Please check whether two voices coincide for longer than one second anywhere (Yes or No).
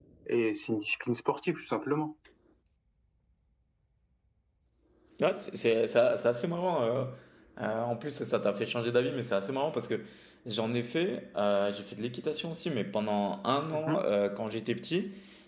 No